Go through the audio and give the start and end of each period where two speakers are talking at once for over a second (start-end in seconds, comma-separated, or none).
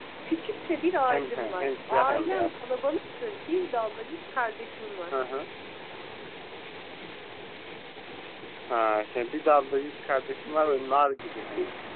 1.1-2.5